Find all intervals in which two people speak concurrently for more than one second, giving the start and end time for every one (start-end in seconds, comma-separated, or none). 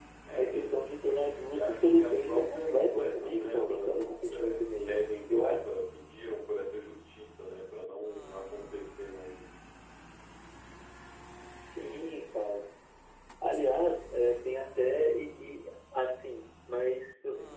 1.5-4.9